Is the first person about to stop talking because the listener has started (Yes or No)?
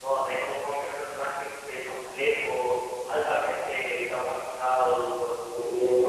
Yes